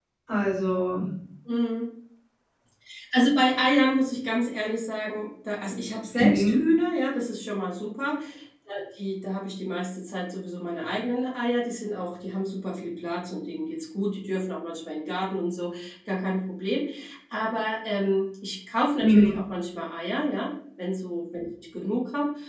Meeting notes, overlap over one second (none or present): none